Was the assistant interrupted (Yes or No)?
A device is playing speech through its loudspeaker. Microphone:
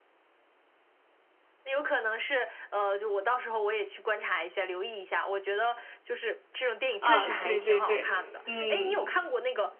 Yes